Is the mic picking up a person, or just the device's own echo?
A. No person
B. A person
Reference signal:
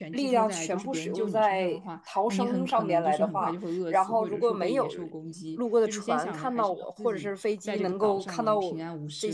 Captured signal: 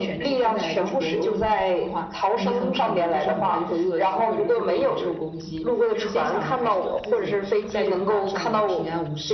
A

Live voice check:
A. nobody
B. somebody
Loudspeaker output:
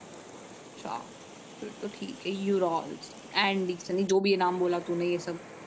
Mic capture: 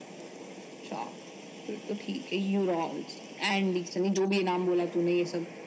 A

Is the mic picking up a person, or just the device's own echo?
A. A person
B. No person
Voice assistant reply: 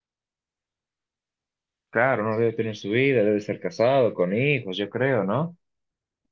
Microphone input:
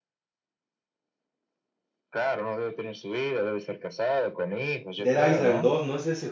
A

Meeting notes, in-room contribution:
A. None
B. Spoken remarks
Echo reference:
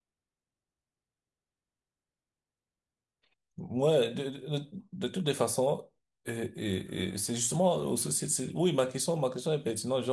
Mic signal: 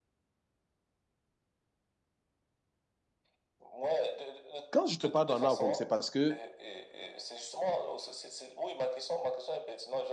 B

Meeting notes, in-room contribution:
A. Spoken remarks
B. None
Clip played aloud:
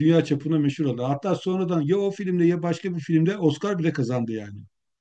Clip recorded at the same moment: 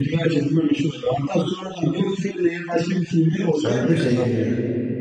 A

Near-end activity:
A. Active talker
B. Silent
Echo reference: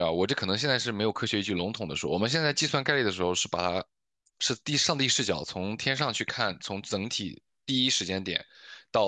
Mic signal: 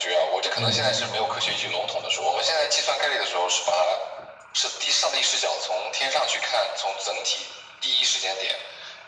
A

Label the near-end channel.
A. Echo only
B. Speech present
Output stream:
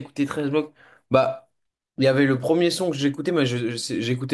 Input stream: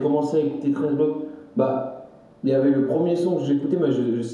A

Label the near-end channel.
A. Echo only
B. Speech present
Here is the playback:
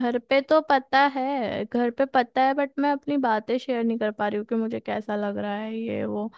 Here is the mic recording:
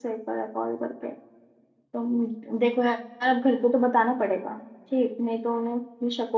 B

